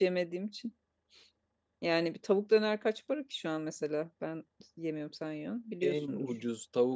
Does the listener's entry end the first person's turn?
Yes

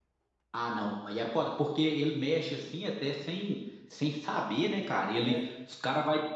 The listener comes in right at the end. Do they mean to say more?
No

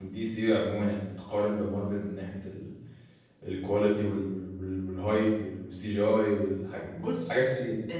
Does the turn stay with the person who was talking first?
No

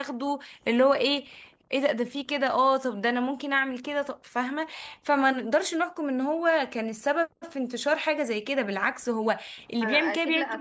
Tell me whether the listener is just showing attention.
No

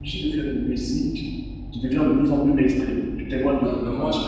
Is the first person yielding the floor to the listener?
Yes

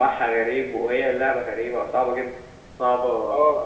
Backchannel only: Yes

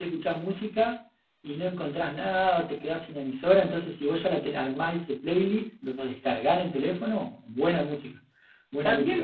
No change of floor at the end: No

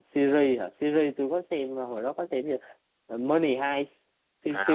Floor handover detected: Yes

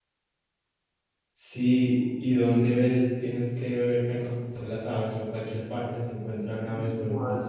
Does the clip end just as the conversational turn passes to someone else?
Yes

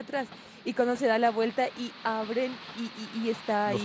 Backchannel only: Yes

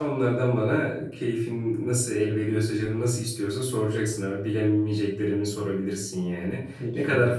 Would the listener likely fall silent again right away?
Yes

